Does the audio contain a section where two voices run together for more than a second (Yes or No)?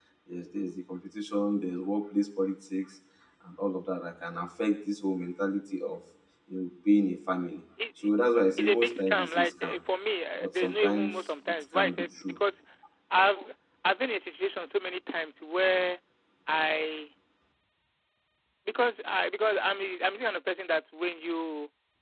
Yes